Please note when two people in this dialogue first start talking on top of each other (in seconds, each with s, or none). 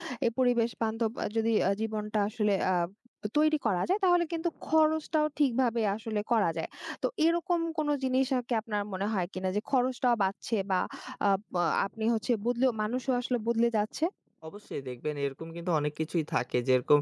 none